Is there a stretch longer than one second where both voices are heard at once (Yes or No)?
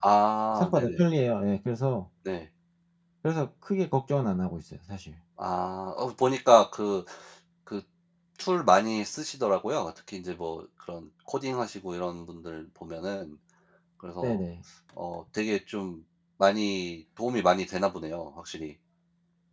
No